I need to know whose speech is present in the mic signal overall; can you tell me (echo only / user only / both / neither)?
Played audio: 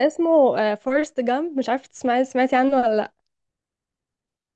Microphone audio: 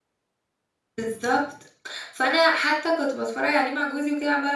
user only